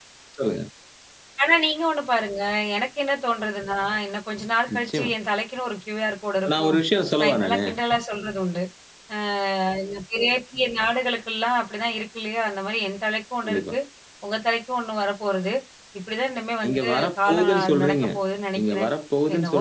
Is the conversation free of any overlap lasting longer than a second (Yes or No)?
No